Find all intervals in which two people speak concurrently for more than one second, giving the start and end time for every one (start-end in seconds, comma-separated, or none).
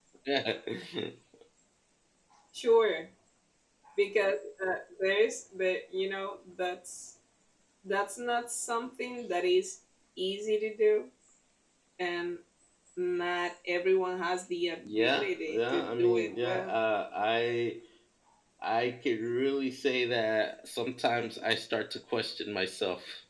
14.8-16.7